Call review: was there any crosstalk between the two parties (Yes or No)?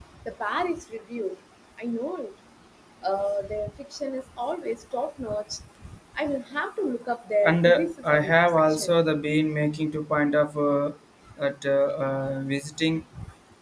Yes